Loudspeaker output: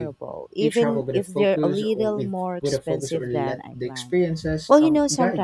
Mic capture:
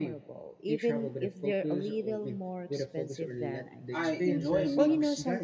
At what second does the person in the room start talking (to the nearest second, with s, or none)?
4 s